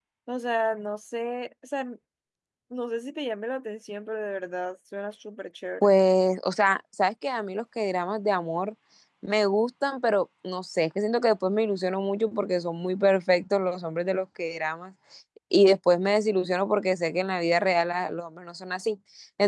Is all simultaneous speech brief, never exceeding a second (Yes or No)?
Yes